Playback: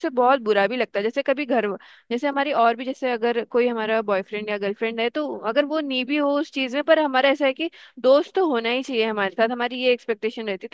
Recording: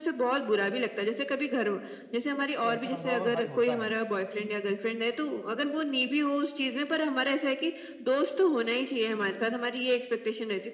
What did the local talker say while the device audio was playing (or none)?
तो ऐसे में थोड़ा बहुत हर्ट होता है